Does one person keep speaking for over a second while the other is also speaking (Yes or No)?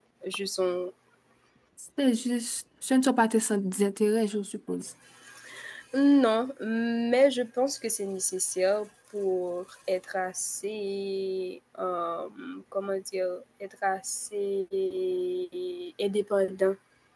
No